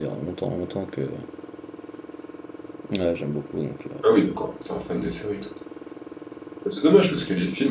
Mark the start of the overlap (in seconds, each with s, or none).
none